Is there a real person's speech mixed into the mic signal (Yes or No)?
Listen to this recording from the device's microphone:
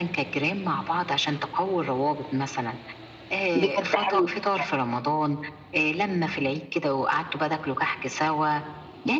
Yes